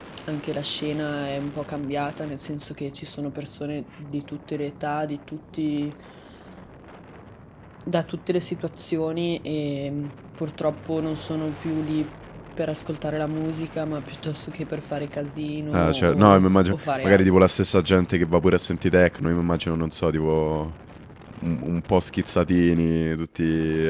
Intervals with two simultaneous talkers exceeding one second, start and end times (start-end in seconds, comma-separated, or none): 15.7-17.3